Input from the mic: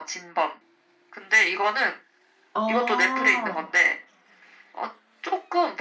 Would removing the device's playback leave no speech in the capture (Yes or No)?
No